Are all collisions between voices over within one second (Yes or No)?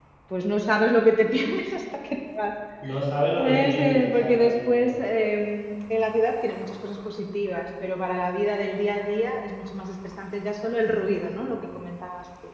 No